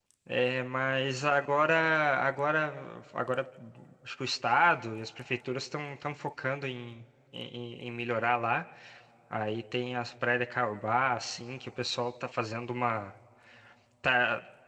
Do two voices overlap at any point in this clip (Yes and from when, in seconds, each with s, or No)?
No